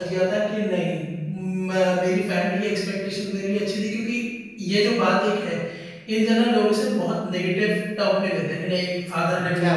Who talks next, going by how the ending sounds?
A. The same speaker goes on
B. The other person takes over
B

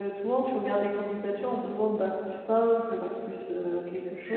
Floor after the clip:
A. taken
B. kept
A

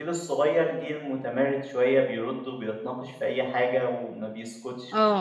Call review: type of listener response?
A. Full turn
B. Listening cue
B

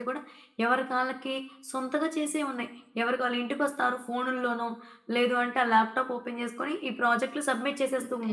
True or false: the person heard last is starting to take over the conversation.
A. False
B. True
B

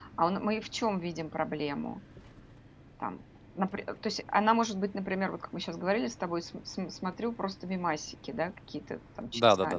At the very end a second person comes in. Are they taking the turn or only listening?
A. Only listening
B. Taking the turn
B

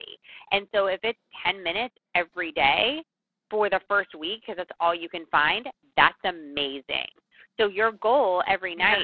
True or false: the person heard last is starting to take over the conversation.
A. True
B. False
B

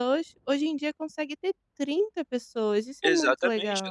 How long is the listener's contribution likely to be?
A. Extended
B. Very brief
A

